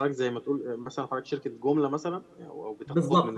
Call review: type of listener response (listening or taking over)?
taking over